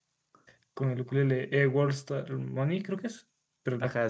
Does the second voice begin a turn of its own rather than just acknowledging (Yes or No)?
Yes